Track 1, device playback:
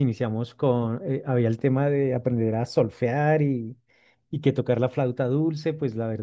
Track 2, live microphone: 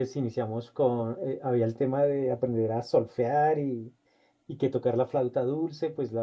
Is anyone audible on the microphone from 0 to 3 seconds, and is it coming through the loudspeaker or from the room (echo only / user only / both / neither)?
echo only